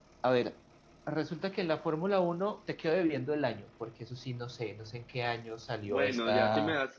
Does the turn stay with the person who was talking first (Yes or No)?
No